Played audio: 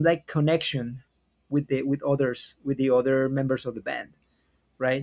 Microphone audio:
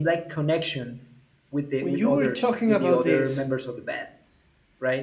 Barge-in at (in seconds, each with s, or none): 1.8 s